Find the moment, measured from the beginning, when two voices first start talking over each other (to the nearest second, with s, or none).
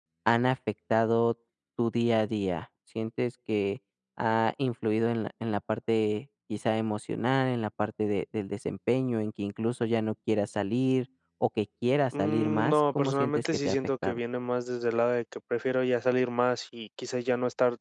12 s